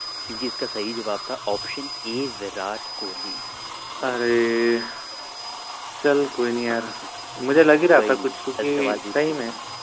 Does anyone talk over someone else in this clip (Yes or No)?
Yes